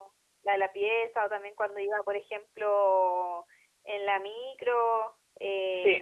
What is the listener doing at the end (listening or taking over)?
listening